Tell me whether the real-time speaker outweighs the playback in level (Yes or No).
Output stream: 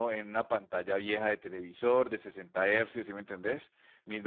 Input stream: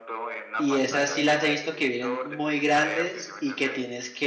Yes